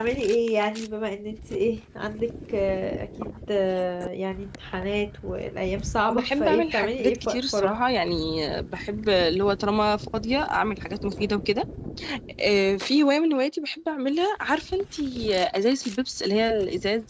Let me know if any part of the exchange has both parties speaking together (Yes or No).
Yes